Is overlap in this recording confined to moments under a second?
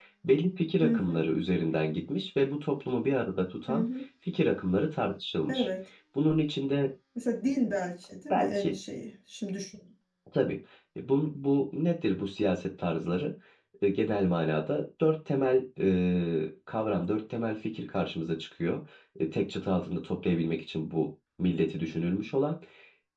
Yes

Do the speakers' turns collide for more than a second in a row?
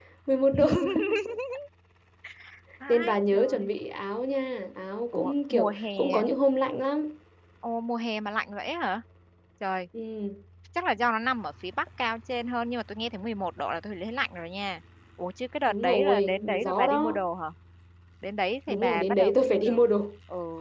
Yes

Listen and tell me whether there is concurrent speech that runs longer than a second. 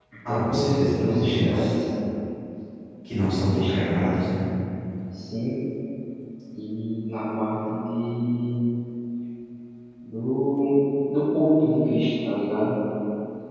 Yes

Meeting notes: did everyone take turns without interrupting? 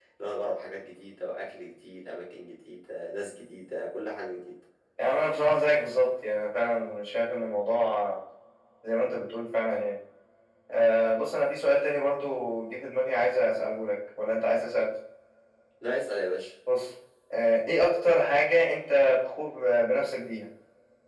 Yes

